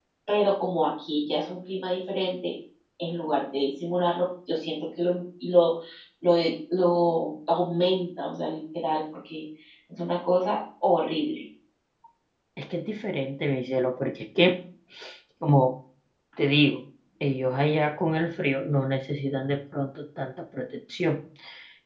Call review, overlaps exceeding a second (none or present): none